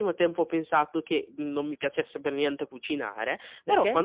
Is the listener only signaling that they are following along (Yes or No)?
Yes